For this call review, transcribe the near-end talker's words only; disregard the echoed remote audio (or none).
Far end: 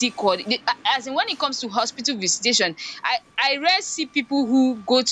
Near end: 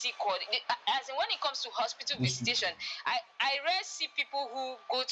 those people,